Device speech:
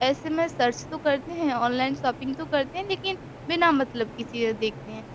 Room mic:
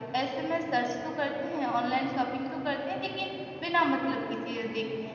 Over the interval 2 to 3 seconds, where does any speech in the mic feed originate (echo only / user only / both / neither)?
echo only